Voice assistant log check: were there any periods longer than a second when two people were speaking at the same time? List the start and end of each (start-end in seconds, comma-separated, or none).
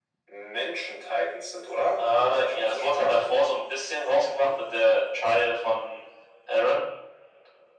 2.0-3.4